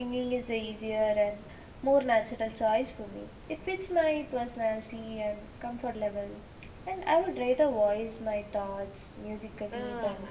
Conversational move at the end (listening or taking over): taking over